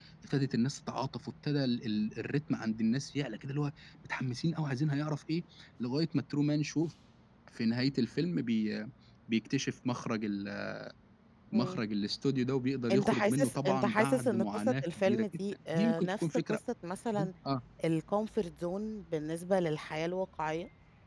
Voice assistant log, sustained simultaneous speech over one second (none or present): present